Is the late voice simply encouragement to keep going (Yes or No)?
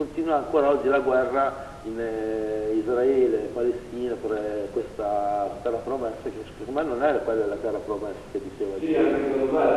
No